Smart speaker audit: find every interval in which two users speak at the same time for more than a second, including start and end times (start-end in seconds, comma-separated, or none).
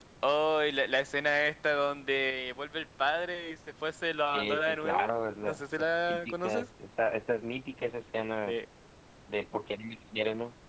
4.3-6.7